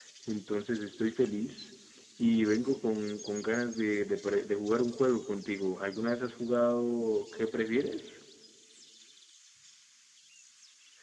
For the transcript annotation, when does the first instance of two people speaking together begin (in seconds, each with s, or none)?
none